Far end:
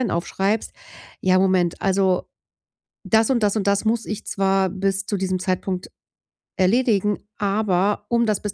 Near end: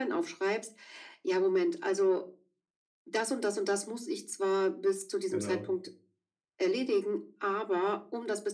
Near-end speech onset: 5 s

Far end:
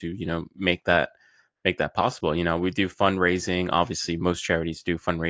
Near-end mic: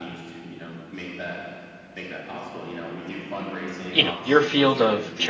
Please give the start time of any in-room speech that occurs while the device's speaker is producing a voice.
4 s

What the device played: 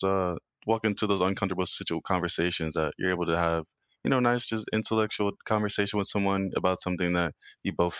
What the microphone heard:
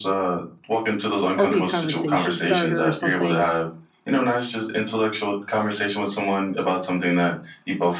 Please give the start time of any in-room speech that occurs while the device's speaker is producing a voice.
1 s

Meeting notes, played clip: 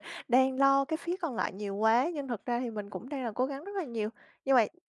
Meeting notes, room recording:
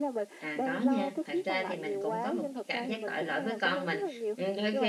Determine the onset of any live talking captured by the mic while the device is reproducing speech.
0 s

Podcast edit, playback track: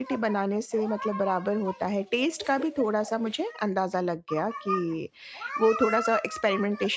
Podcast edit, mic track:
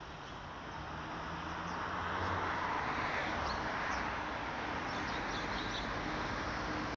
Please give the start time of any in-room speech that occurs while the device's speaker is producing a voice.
none

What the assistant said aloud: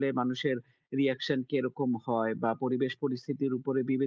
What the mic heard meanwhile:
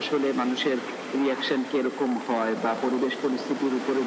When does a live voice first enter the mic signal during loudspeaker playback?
none

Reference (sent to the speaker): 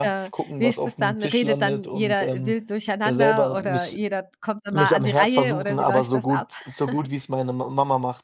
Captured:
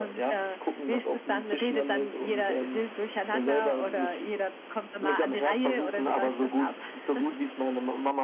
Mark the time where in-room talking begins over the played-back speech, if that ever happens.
none

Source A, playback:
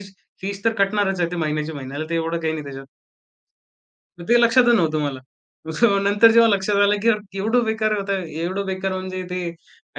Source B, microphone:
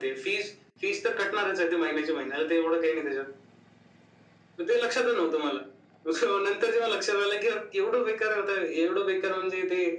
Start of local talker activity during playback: none

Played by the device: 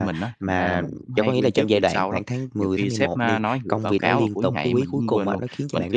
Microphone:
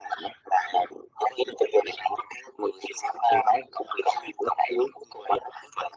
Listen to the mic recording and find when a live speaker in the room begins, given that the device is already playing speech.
none

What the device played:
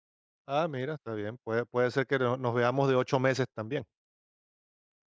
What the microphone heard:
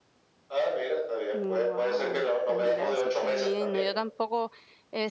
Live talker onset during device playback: 1 s

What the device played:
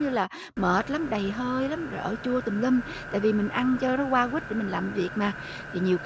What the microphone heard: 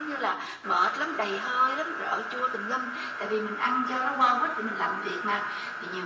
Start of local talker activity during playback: none

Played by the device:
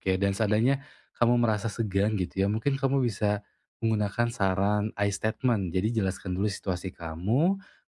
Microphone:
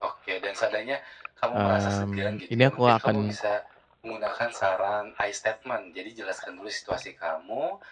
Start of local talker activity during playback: 2 s

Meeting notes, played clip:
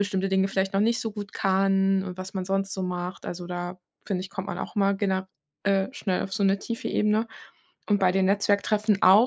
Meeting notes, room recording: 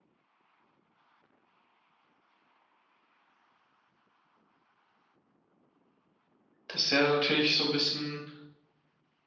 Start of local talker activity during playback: 7 s

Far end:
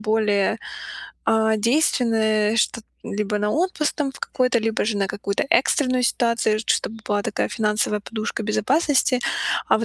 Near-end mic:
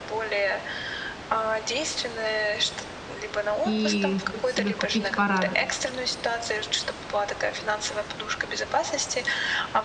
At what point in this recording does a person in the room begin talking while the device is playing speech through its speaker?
4 s

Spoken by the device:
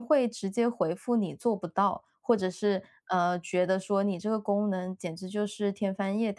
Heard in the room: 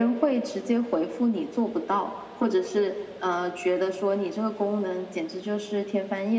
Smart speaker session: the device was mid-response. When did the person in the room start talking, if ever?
none

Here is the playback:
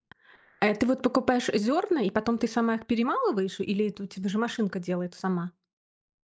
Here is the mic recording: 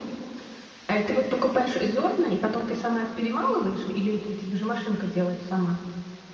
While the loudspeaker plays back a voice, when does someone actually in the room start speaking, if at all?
none

